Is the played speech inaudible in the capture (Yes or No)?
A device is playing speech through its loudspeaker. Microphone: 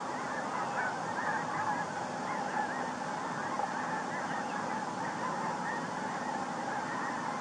Yes